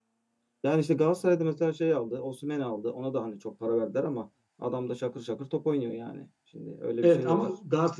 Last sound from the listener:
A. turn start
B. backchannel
A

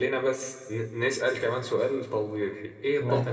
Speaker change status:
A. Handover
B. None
B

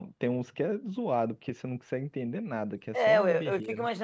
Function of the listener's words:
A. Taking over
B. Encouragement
A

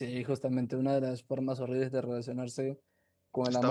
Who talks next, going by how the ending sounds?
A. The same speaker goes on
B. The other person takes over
A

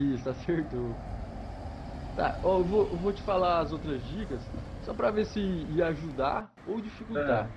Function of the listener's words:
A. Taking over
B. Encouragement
B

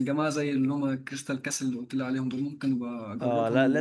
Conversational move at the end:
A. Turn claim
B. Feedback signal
A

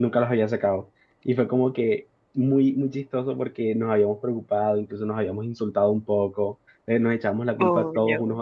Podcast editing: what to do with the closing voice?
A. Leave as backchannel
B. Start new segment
A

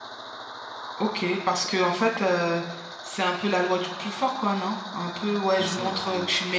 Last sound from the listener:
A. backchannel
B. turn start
A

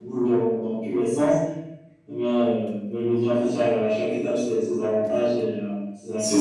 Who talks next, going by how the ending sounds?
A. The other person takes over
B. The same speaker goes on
A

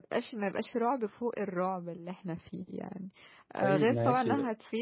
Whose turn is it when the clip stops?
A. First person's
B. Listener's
A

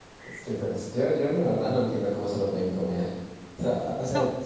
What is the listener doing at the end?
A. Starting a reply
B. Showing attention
B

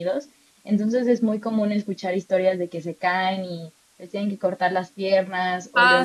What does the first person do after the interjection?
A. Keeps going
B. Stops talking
B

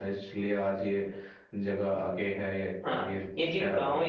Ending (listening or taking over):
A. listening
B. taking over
B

